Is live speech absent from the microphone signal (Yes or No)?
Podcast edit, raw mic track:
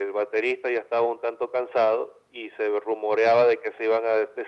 Yes